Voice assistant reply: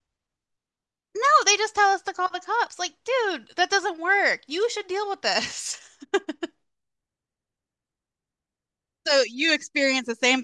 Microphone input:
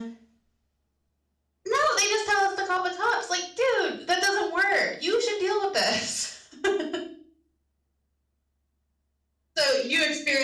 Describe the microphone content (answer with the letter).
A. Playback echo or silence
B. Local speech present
A